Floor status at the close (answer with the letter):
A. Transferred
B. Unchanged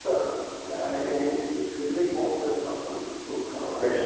A